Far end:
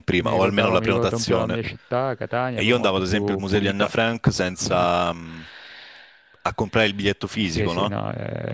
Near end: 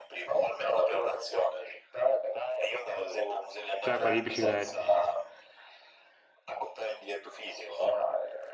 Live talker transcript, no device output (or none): Sai, quelli di biciclette.